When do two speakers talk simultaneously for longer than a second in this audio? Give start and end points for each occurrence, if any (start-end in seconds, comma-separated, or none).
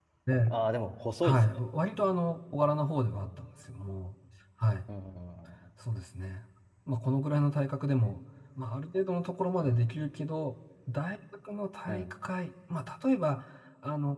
none